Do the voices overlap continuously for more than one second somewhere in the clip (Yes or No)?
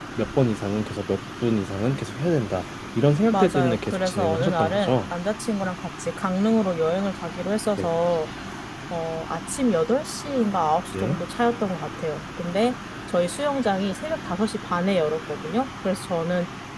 Yes